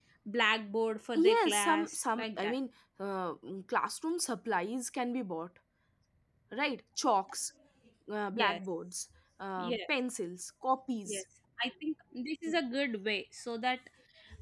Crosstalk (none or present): present